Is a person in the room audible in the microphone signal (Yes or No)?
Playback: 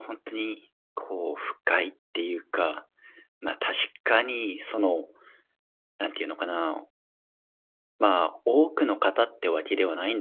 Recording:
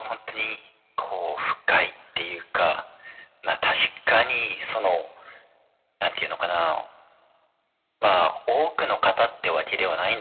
No